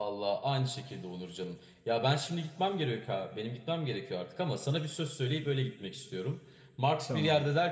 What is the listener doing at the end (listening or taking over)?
listening